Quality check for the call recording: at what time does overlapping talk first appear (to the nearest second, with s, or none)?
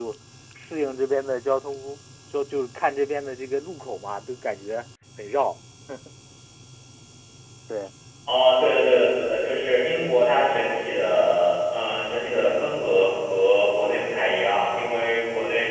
none